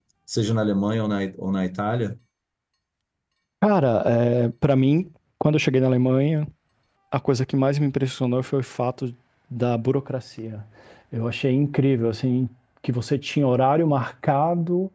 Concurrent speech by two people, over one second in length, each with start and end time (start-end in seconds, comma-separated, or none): none